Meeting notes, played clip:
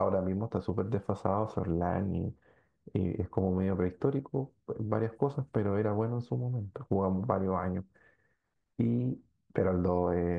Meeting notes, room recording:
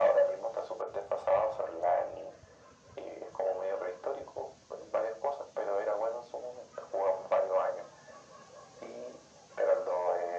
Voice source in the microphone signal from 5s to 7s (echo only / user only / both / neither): echo only